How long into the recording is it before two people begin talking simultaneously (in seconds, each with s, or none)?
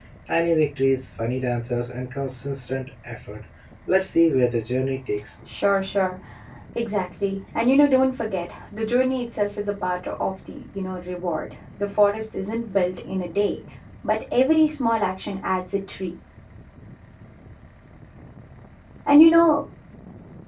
none